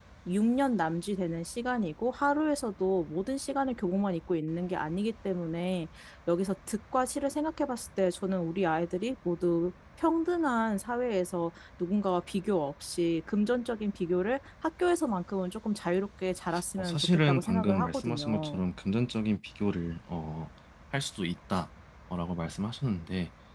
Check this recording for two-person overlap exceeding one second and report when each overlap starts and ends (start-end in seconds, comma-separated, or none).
16.8-18.6